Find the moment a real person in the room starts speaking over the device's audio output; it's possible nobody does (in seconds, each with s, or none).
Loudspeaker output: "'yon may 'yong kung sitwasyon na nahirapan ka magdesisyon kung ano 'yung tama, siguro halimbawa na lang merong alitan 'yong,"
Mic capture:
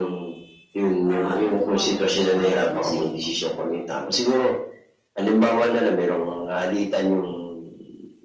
1.1 s